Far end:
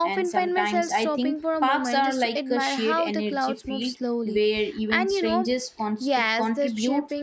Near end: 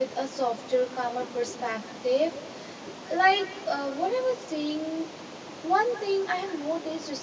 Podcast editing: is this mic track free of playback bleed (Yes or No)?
Yes